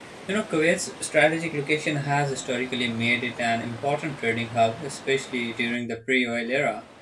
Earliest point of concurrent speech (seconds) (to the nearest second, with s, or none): none